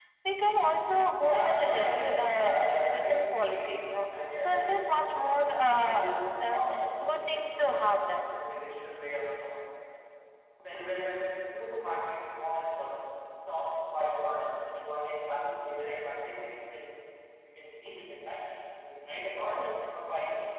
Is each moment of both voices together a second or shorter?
No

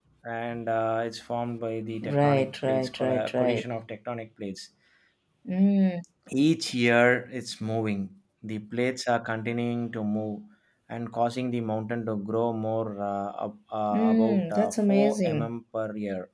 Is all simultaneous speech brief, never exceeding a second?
No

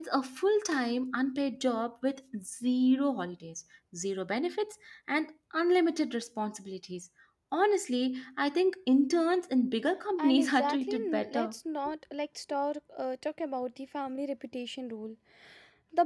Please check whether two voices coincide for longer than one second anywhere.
Yes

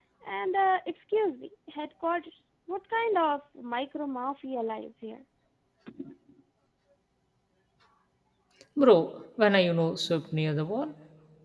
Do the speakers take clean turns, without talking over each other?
Yes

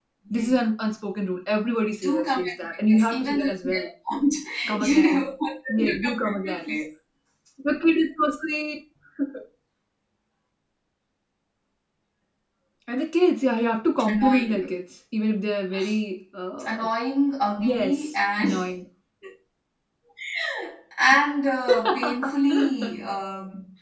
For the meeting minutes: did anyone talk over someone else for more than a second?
Yes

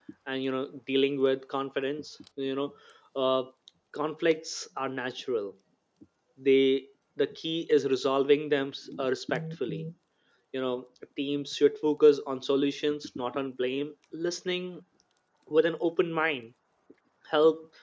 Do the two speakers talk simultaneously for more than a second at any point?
No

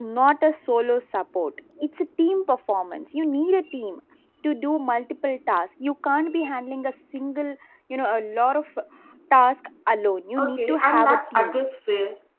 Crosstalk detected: Yes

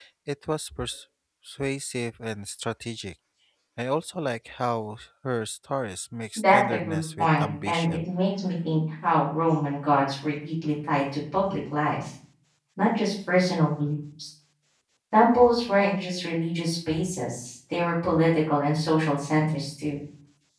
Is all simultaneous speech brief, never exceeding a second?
No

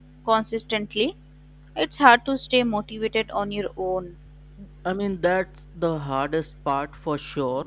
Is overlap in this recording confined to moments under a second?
Yes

